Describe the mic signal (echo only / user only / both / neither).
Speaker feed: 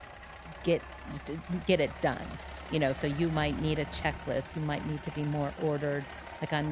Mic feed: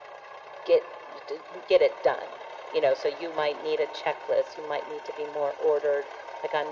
echo only